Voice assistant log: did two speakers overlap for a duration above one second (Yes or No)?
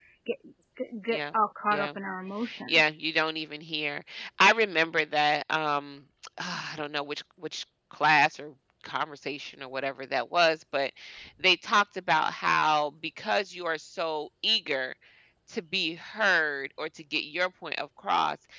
No